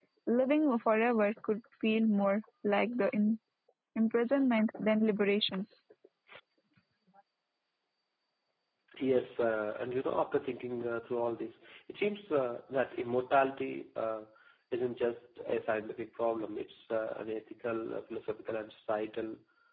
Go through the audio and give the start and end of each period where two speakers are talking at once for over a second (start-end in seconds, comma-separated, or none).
none